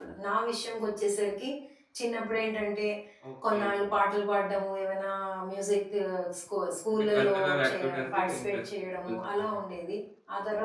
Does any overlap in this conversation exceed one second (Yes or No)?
Yes